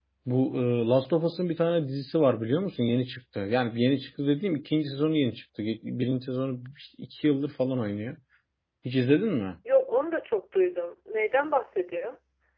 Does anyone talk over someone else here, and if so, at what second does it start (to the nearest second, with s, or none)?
none